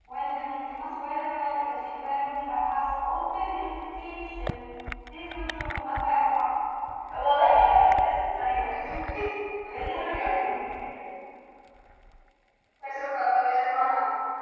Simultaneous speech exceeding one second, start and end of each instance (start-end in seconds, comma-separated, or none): none